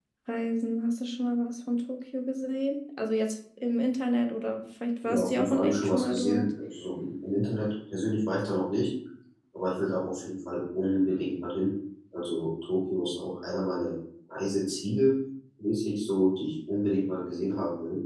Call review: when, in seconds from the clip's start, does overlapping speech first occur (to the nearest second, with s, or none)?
5 s